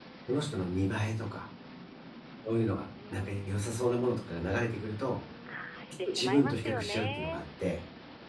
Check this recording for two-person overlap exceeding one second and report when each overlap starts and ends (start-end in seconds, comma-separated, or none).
6.1-7.4